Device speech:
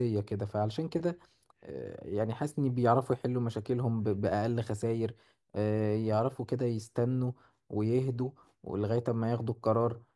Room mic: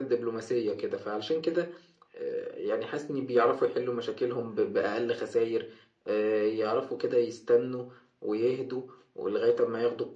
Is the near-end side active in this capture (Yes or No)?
No